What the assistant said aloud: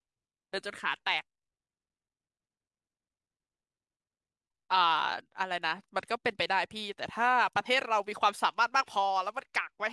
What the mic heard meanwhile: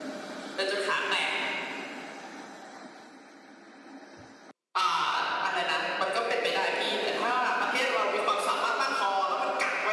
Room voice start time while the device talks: none

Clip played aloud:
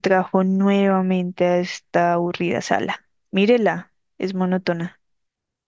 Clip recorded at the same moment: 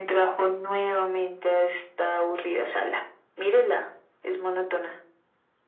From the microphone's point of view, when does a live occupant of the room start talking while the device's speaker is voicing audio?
none

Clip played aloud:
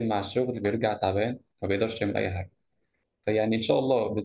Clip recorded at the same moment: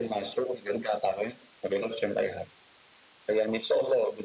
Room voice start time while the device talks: none

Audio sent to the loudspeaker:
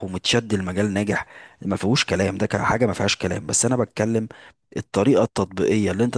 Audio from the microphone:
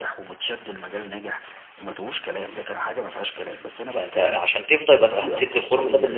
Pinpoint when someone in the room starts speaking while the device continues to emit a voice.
3.8 s

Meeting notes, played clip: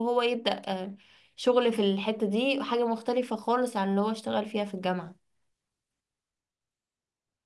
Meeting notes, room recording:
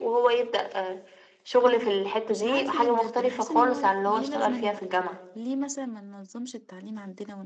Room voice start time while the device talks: 1.6 s

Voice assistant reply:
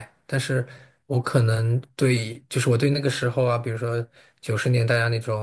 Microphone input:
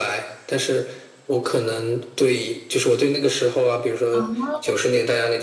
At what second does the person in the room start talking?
4.1 s

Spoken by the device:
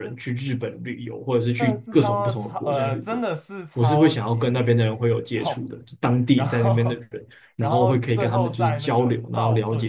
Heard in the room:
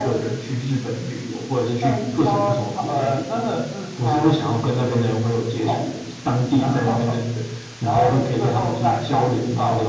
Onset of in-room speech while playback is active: none

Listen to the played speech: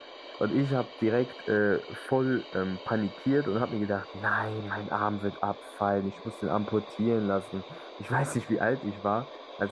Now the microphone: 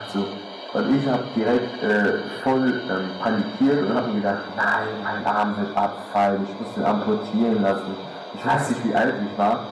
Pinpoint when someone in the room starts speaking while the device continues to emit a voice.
none

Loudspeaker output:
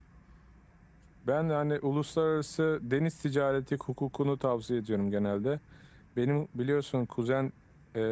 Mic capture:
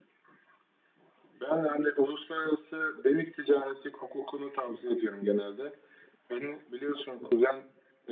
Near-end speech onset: none

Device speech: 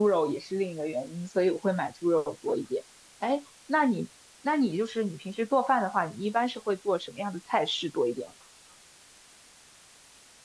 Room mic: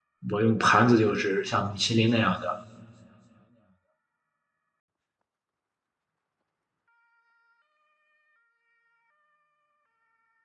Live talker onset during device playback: 0.3 s

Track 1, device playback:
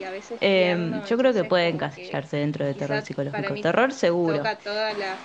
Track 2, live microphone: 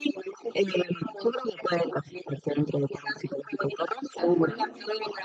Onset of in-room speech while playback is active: 4.2 s

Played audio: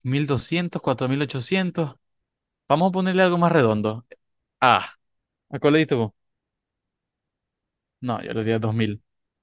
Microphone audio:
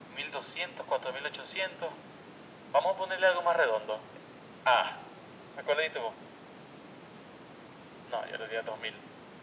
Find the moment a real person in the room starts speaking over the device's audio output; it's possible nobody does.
none

